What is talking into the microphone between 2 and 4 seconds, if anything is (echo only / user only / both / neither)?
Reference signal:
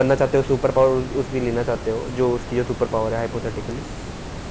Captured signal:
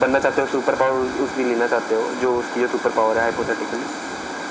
echo only